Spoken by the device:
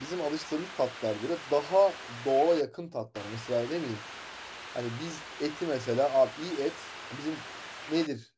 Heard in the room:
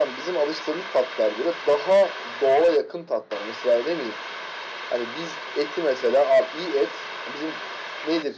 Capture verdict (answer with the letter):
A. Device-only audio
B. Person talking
A